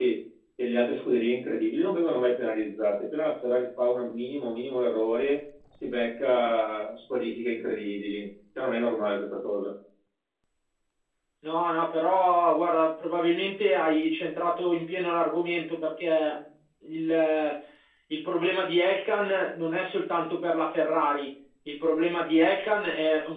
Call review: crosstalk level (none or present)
none